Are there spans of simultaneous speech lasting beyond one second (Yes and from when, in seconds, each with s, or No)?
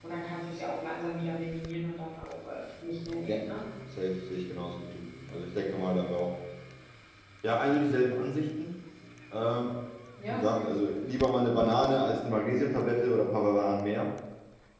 No